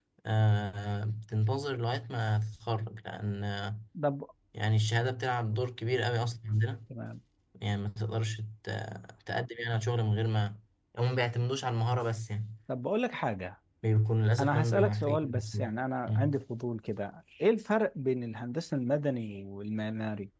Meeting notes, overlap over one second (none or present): present